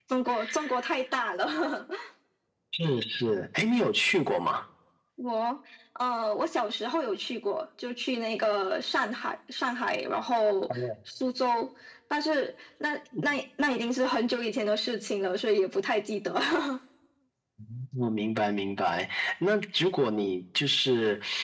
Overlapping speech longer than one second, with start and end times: none

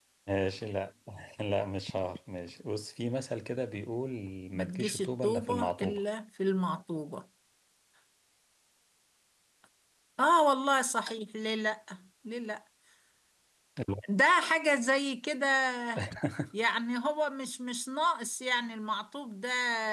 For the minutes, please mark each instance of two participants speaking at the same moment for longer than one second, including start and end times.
4.6-6.0

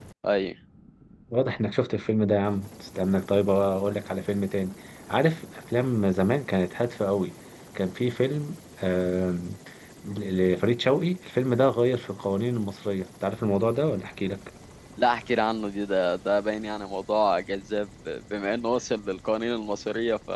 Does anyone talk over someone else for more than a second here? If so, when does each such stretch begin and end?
none

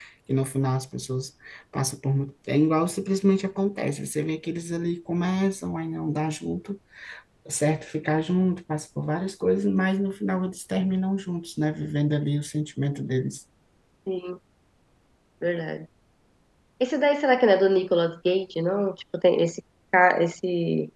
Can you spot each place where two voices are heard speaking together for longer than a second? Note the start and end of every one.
none

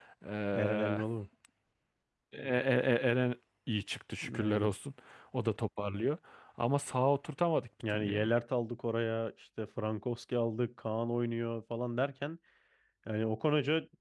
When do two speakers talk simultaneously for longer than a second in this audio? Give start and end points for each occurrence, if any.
none

